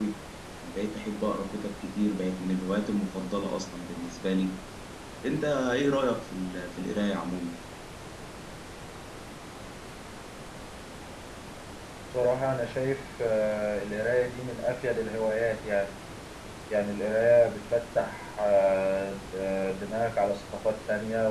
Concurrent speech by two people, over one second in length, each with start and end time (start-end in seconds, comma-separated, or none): none